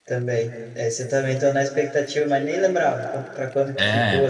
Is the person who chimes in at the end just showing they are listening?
No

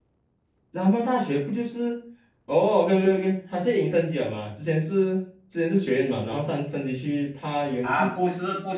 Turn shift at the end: Yes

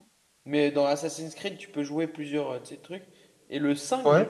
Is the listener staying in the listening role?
Yes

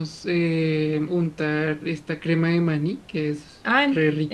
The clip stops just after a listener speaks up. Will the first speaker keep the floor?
No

